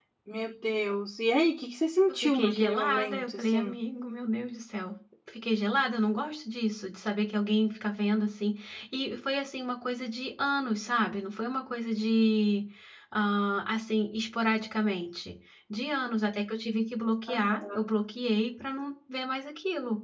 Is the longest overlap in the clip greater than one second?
Yes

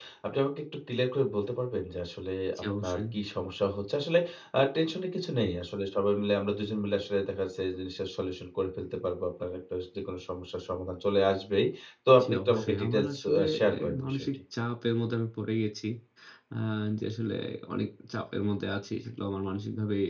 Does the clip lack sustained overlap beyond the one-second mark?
No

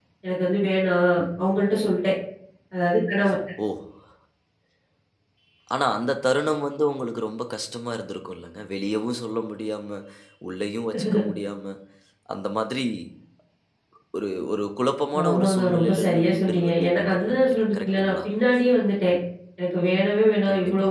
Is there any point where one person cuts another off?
Yes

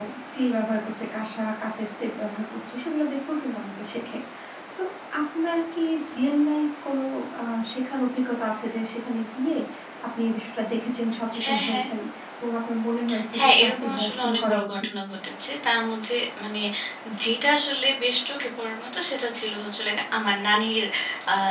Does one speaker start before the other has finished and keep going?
Yes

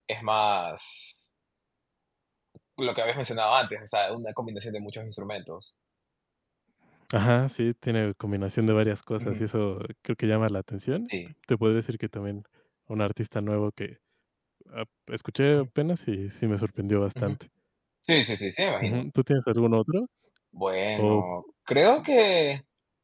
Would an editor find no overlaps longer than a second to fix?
Yes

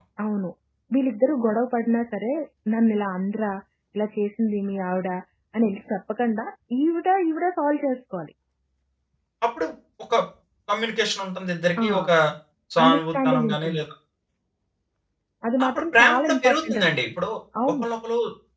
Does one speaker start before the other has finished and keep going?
Yes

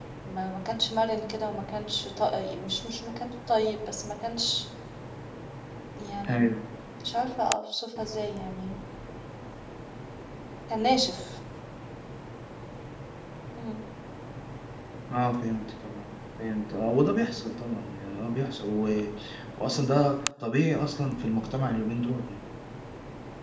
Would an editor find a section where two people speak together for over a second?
No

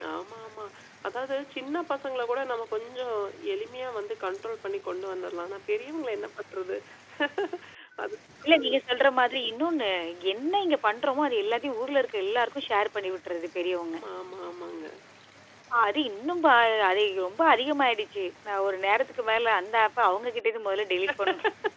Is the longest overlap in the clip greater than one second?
No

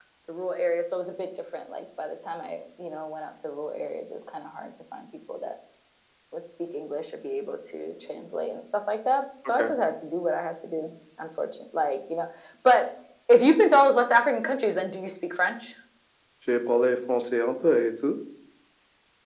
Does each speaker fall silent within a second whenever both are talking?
Yes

